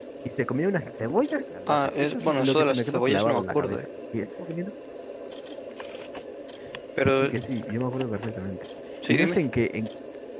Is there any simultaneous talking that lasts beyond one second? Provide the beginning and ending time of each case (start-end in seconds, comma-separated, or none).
1.7-3.8